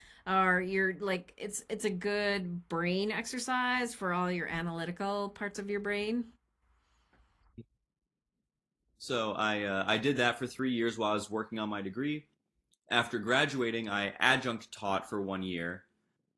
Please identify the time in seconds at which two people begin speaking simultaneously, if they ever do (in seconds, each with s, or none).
none